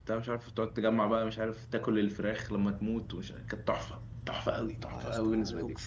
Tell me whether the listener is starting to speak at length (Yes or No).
Yes